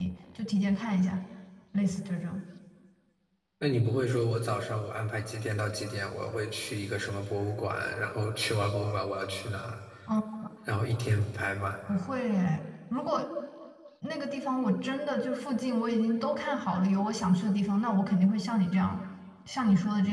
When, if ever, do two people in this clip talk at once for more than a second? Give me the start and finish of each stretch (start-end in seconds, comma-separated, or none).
none